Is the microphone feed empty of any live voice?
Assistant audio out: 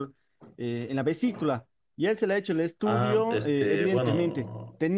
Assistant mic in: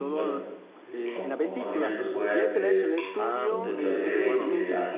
No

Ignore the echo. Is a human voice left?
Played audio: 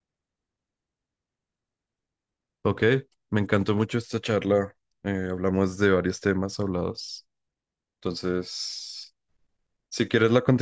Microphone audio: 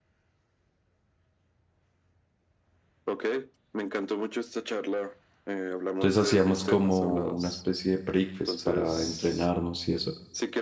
Yes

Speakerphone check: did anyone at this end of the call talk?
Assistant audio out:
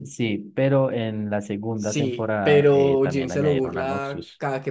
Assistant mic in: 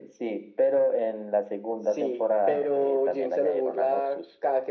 No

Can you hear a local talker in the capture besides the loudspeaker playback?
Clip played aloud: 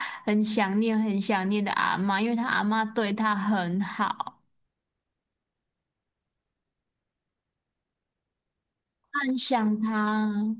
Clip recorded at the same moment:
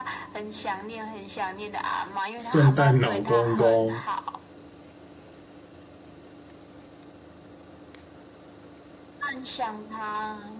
Yes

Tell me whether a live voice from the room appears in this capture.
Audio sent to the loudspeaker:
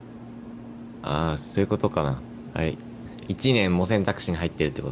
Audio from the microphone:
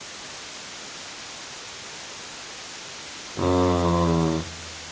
Yes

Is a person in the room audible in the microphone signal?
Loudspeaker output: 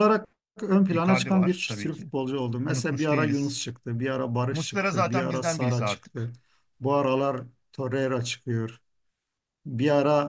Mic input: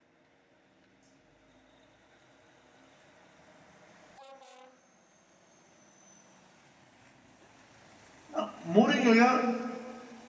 Yes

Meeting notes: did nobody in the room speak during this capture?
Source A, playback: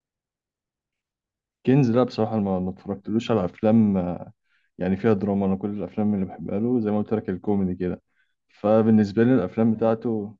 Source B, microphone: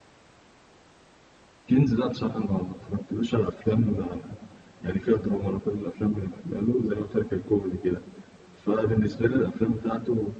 Yes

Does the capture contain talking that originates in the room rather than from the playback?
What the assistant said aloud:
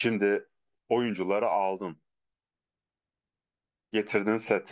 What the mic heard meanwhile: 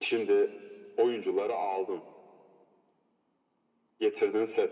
No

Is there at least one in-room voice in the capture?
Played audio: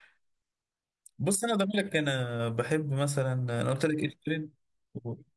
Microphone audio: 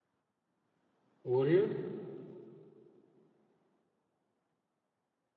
Yes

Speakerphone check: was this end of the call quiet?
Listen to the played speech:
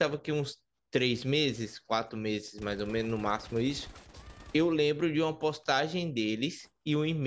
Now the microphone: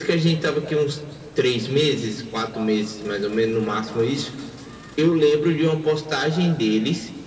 Yes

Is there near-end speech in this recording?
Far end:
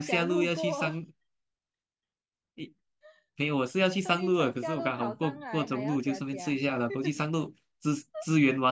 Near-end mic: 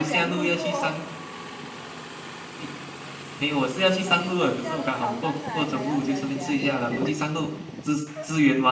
No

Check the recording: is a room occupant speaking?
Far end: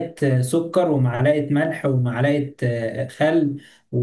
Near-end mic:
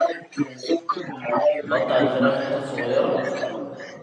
Yes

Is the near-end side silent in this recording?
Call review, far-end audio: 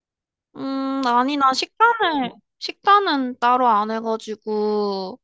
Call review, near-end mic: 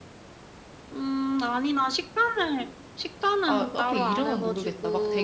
No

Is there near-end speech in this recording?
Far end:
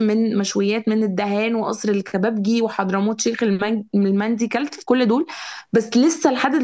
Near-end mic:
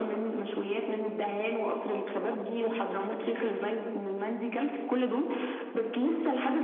Yes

